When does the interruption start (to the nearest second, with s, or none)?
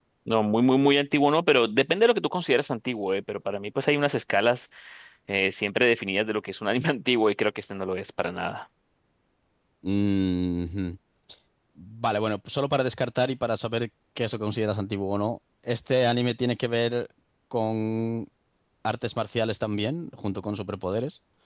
none